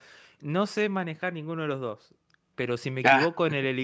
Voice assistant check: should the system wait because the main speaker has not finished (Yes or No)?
Yes